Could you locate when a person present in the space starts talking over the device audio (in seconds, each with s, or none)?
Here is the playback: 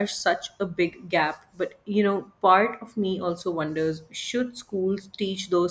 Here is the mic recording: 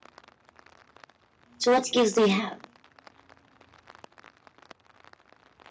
1.6 s